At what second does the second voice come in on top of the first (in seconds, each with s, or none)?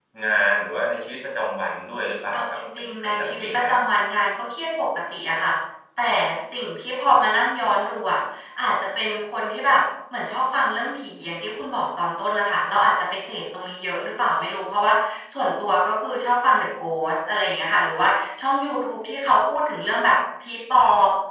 2.3 s